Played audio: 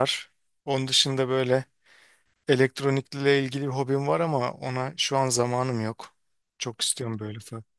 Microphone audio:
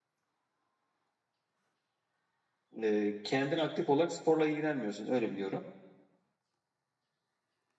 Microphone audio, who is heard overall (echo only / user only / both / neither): user only